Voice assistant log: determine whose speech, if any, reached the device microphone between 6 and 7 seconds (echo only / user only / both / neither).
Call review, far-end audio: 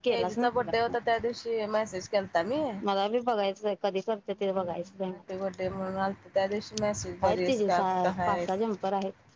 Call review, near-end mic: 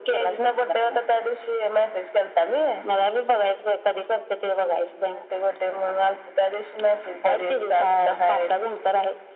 echo only